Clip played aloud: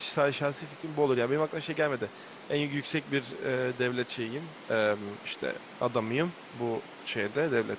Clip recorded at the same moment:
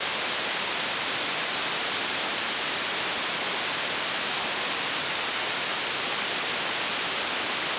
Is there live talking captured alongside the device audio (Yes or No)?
No